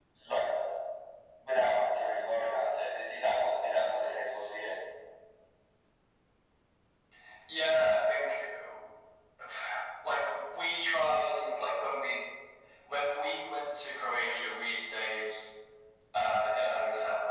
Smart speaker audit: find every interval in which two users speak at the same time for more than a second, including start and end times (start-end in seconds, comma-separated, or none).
none